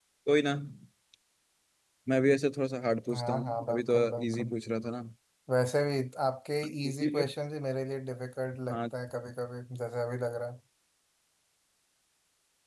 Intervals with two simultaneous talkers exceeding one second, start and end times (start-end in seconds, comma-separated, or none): 3.1-4.5